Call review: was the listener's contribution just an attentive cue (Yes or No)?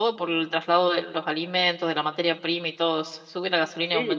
No